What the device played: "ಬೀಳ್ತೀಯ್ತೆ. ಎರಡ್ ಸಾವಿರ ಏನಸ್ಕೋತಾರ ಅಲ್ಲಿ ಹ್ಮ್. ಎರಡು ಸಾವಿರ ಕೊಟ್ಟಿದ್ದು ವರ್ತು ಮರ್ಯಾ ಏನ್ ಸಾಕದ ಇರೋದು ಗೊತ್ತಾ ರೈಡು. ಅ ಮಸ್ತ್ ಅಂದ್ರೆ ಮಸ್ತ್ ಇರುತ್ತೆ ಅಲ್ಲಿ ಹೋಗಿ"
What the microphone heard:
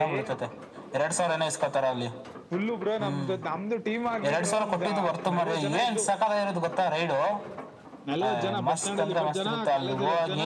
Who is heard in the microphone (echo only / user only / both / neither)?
both